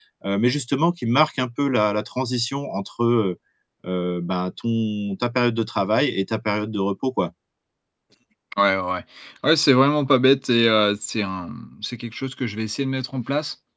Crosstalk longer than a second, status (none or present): none